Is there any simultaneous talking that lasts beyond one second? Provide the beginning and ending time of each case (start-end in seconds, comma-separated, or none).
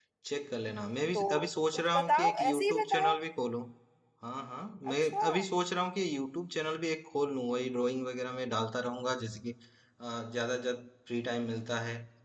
1.7-3.2